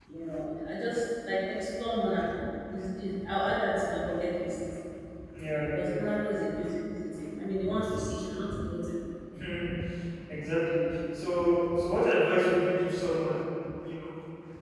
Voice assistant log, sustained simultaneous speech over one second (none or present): none